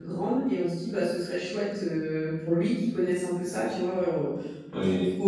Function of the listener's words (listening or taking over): listening